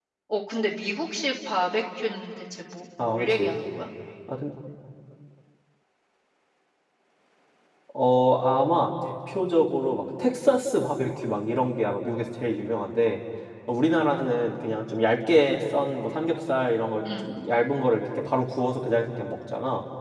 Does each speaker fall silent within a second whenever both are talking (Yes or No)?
Yes